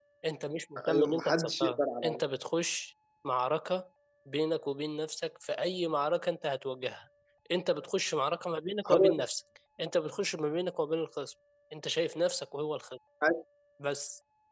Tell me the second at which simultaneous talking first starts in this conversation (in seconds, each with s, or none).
0.9 s